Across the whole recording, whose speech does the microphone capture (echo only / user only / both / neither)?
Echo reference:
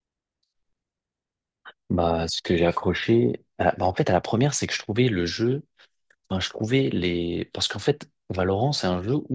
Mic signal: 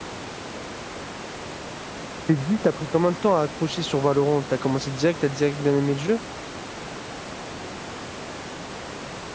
user only